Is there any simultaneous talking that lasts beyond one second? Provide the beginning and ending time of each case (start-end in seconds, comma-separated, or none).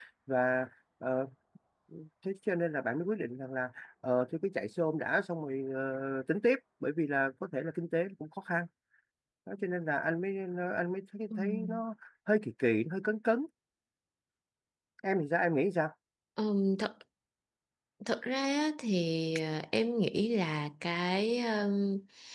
none